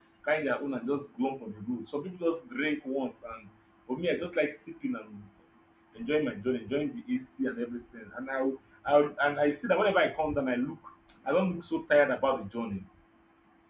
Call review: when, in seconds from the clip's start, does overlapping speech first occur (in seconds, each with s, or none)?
none